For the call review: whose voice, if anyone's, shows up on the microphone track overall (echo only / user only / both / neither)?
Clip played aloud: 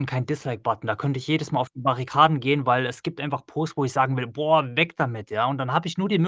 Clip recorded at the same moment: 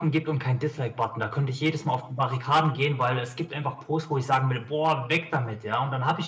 echo only